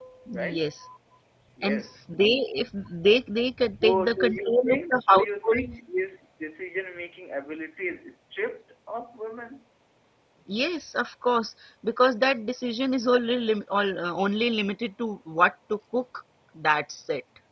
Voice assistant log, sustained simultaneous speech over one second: present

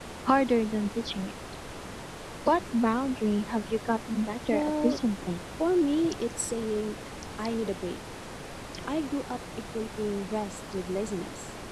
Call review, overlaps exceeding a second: none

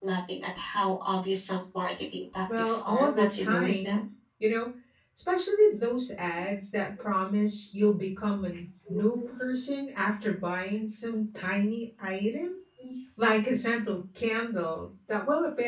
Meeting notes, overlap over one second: present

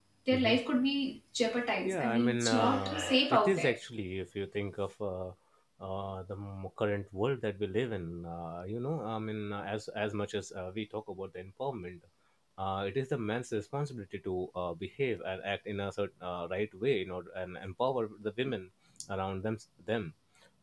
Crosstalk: present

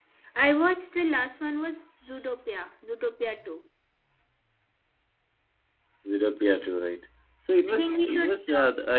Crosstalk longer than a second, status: present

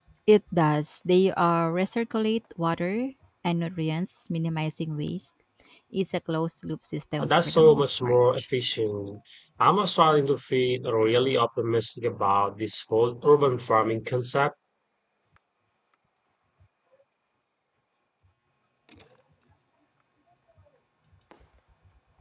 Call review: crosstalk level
present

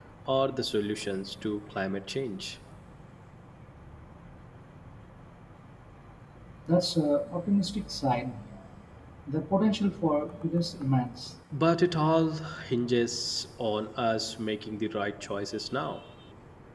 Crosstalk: none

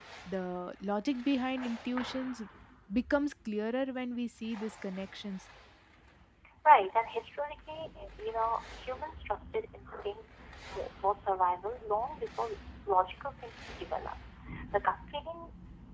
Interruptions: none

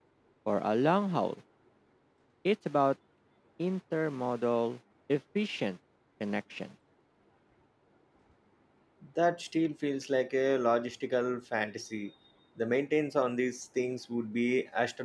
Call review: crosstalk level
none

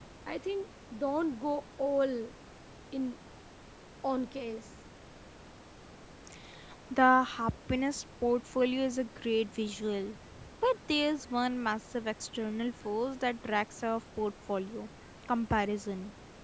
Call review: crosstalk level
none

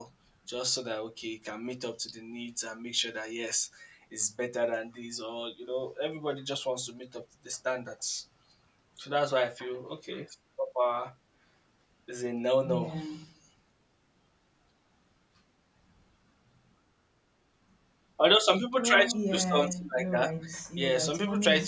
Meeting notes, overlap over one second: present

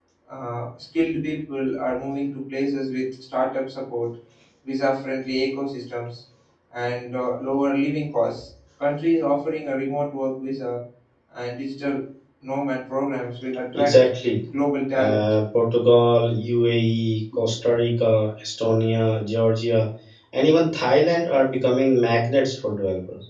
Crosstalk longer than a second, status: none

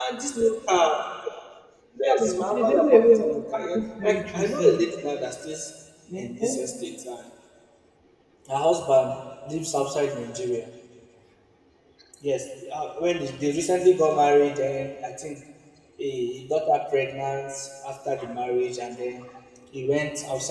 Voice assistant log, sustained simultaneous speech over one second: present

